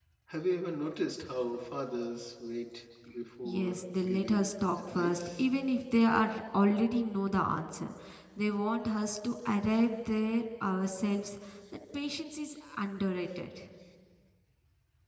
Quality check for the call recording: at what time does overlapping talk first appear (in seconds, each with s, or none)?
3.4 s